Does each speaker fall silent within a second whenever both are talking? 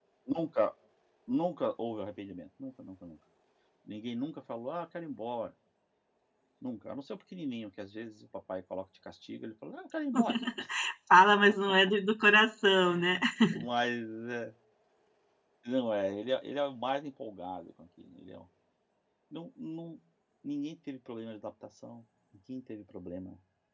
Yes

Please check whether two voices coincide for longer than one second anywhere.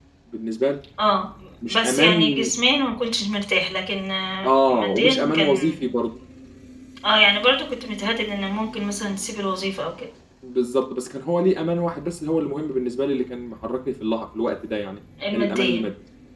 Yes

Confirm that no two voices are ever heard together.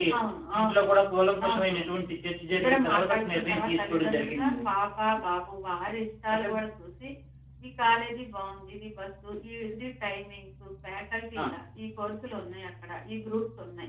No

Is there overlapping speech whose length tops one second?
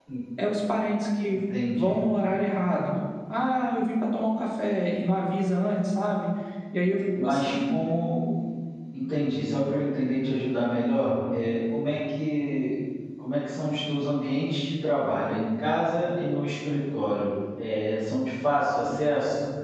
No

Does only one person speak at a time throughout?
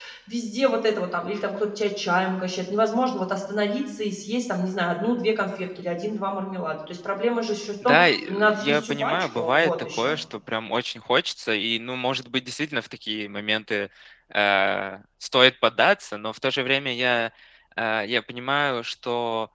No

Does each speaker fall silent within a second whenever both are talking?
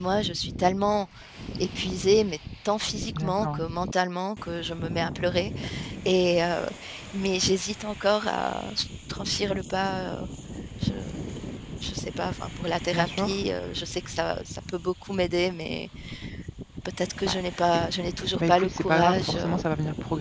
No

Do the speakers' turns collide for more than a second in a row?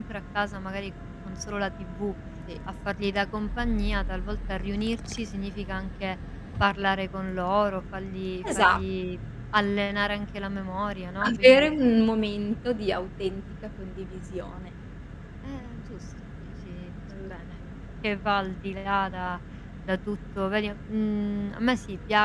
No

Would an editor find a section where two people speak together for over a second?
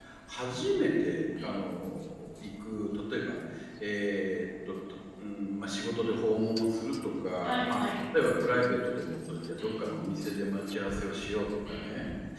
No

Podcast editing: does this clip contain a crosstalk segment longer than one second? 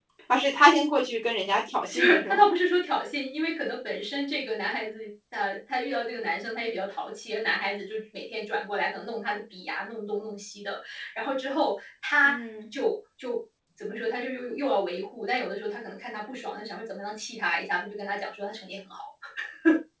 No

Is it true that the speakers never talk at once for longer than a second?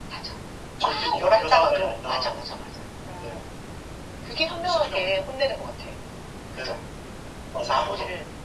No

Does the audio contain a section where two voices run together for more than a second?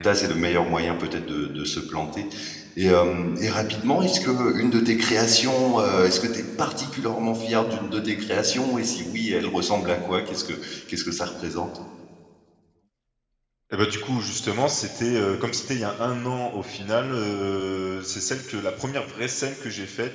No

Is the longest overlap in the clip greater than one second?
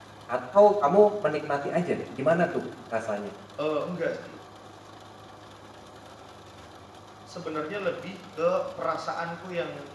No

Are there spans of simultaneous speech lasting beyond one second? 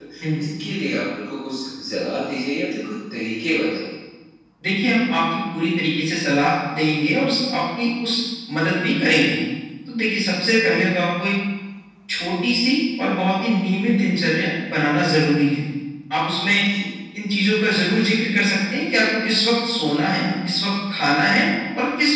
No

